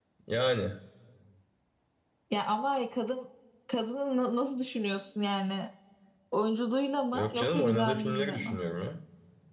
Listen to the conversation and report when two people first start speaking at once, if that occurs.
7 s

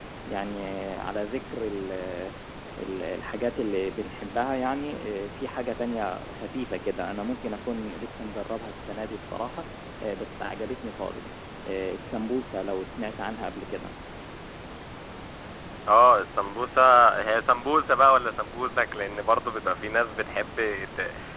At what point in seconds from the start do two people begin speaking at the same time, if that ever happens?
none

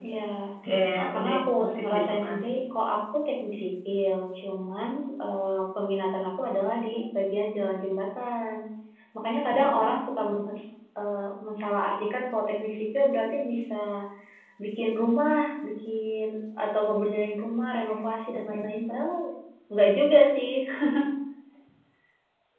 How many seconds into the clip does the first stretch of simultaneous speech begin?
1 s

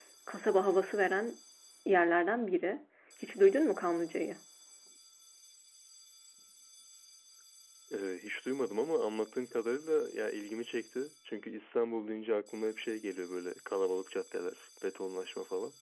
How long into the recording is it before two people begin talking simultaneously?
none

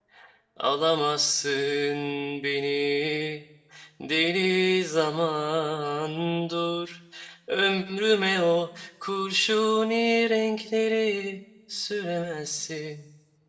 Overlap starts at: none

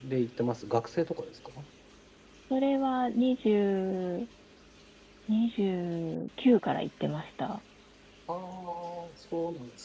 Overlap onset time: none

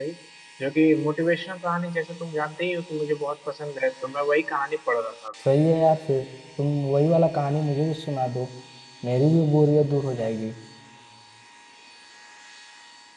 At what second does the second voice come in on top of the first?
none

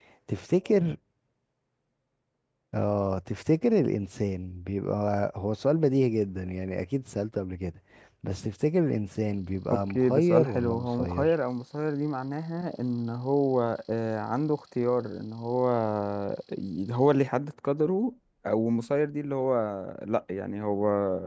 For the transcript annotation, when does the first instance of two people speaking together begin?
10 s

